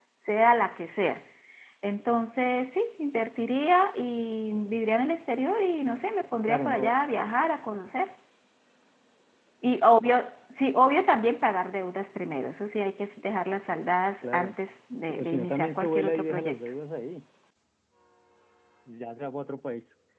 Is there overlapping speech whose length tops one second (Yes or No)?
Yes